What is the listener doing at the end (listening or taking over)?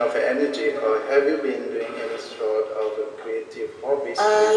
taking over